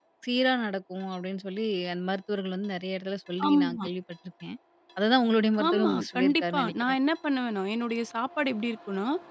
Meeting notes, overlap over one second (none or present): present